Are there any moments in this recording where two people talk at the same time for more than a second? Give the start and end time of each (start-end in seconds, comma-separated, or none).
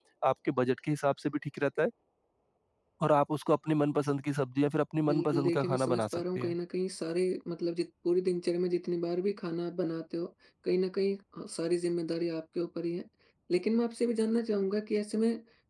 5.1-6.6